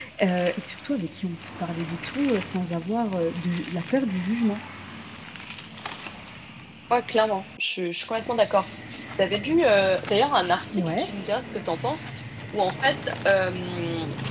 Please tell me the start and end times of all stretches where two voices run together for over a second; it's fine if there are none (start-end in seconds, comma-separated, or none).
none